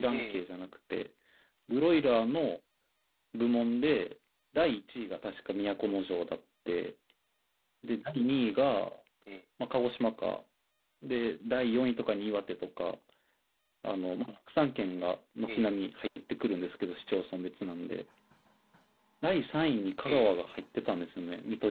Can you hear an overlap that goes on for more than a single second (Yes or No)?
No